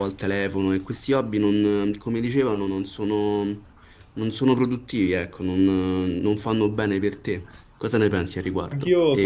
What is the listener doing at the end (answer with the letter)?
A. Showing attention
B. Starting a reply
B